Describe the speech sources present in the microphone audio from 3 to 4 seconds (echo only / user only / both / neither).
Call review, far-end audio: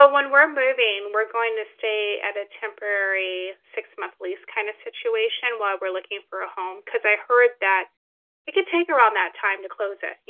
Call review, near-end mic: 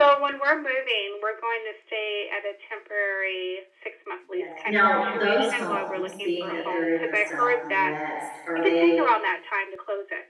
echo only